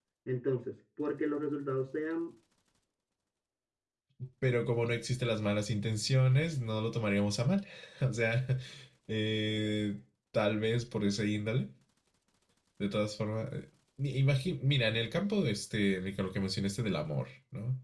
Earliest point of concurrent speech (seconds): none

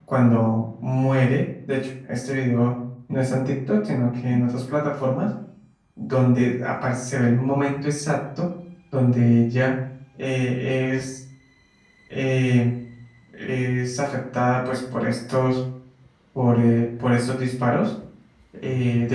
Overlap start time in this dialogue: none

